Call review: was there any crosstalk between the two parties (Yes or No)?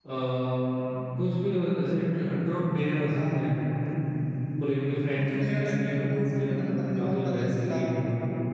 Yes